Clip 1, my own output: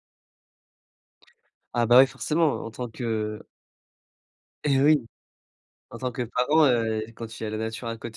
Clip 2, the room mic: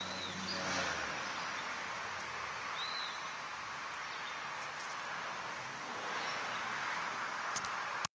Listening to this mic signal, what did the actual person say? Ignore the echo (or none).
none